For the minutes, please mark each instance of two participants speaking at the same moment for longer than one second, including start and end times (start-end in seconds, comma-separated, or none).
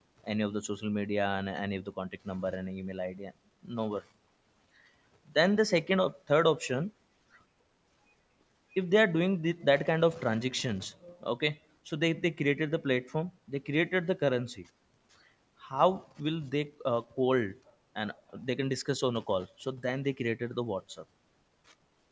none